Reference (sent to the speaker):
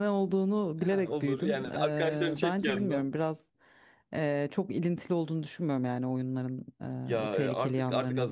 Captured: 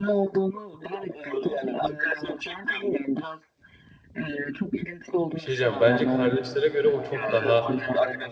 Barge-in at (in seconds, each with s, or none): 5.3 s